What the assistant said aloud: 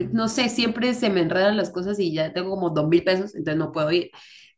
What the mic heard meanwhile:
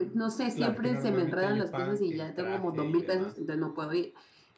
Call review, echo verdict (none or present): present